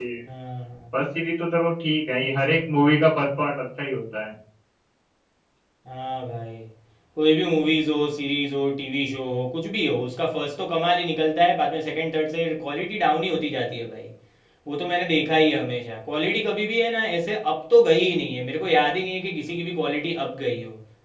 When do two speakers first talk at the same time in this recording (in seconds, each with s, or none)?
none